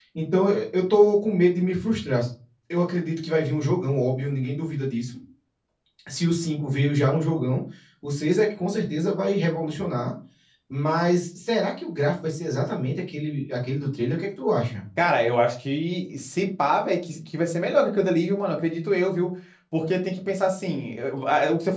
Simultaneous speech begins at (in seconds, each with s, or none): none